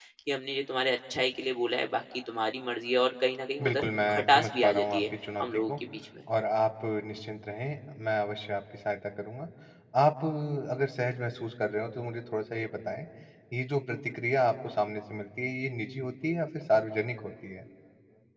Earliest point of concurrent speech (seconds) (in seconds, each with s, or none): 3.6 s